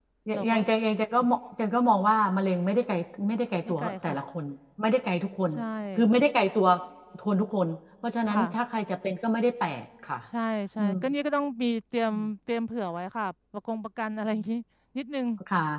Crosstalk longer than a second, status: none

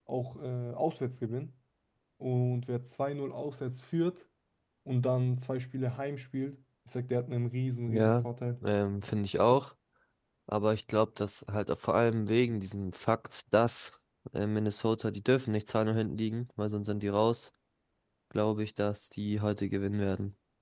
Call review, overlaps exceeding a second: none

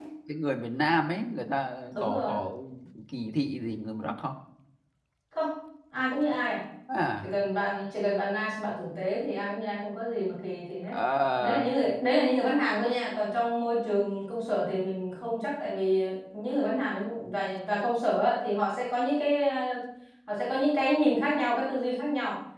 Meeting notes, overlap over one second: none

